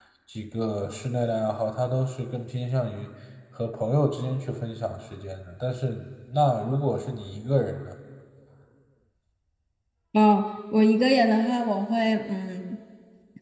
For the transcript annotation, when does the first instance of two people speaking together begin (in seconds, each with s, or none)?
none